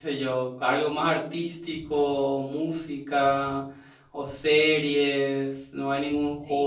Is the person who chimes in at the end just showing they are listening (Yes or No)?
No